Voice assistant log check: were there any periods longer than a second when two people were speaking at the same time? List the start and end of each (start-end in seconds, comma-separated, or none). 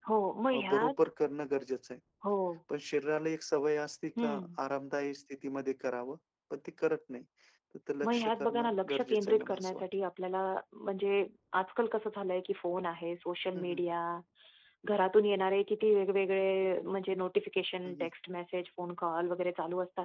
8.0-9.8